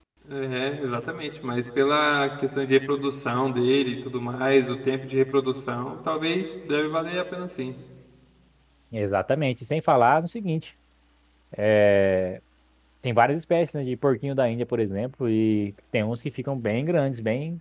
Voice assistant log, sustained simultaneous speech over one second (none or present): none